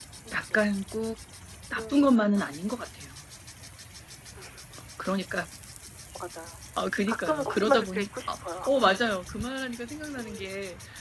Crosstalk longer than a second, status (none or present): present